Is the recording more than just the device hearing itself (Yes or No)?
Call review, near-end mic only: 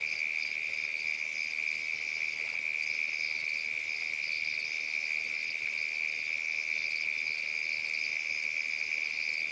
No